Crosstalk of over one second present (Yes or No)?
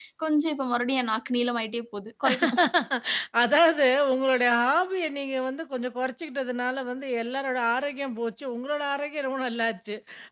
No